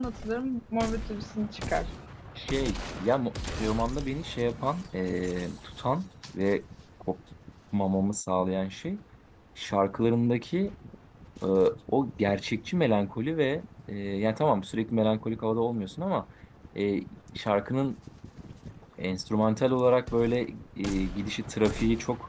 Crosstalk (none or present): none